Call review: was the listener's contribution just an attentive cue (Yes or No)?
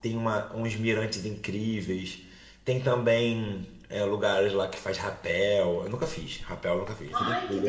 No